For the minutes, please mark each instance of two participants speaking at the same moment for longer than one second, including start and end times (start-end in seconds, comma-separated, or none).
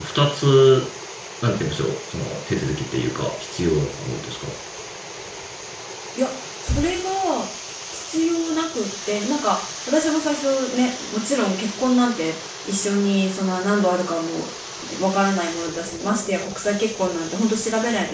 none